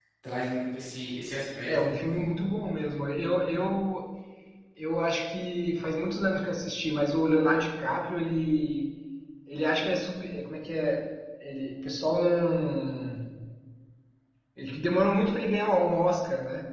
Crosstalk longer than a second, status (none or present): none